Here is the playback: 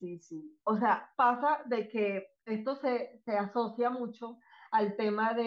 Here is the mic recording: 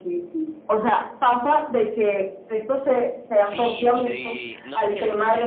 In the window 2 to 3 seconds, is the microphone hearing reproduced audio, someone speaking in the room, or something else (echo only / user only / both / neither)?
echo only